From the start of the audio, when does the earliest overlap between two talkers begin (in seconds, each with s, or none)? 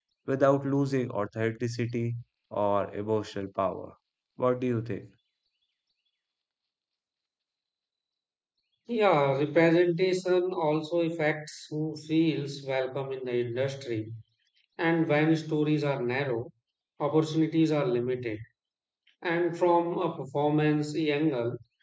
none